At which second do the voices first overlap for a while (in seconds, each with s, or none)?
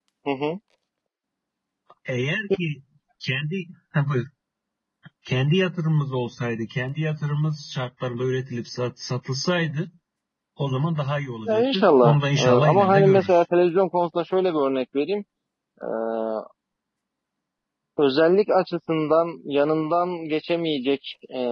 11.5 s